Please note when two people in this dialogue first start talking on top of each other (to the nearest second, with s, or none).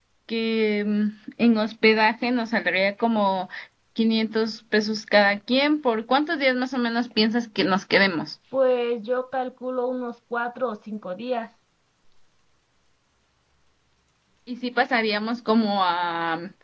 none